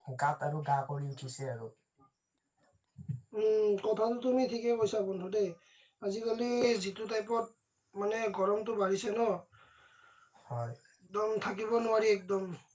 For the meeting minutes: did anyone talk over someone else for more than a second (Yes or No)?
No